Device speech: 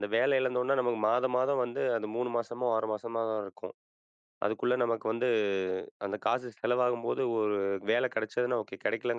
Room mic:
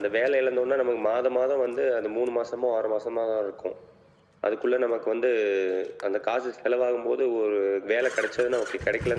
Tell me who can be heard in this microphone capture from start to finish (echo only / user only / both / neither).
echo only